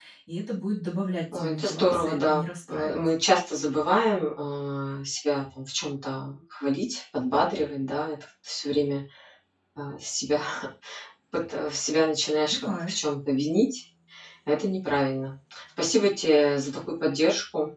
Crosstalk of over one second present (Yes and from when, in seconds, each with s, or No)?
Yes, from 1.3 s